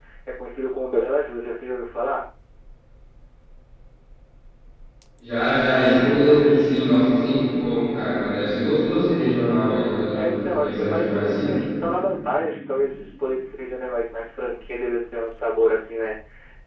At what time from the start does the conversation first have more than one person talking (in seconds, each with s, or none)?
10.2 s